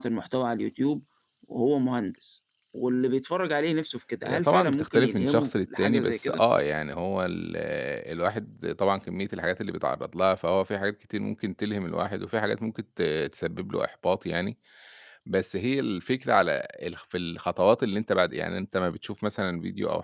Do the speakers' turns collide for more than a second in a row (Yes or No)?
Yes